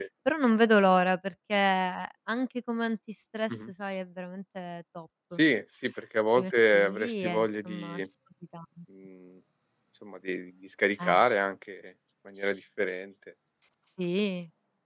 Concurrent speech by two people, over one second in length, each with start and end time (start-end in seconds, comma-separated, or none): 6.4-8.0